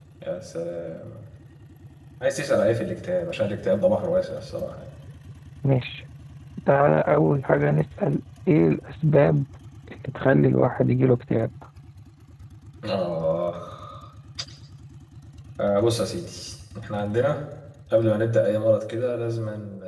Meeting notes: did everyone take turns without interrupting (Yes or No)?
Yes